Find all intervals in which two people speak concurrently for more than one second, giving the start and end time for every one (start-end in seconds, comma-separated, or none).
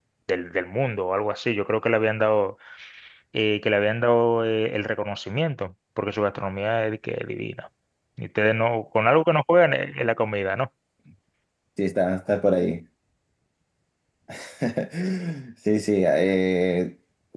none